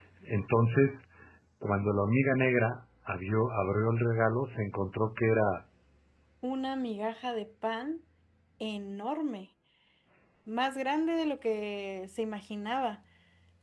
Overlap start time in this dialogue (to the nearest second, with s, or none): none